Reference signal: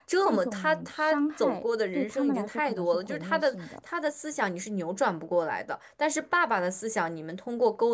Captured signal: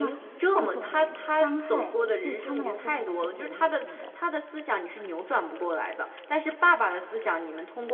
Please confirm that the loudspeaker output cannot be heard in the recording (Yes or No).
No